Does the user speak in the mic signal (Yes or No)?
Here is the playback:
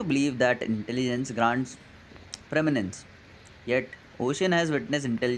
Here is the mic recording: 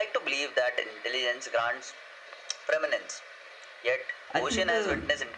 Yes